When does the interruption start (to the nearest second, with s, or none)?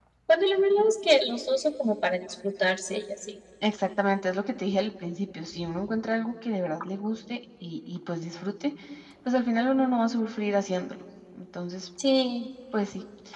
none